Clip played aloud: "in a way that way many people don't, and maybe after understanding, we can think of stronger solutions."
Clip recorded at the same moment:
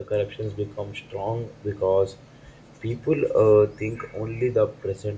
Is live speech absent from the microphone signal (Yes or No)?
No